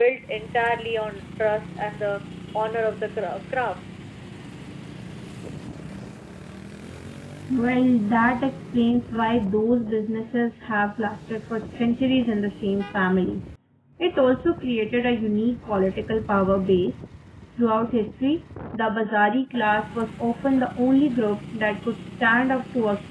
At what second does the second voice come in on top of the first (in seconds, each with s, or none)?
none